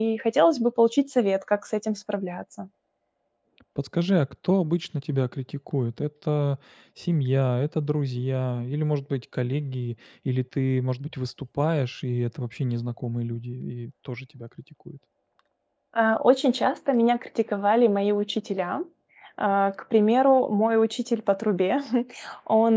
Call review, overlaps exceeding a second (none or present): none